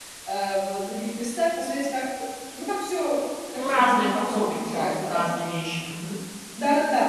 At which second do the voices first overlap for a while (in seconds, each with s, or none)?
3.5 s